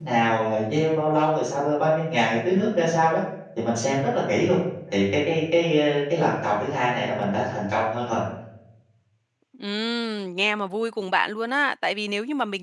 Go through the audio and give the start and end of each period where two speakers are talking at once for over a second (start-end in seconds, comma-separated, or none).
none